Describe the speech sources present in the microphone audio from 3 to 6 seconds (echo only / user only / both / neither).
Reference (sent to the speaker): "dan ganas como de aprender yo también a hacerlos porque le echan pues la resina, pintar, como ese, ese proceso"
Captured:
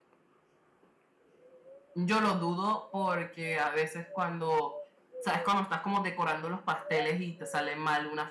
user only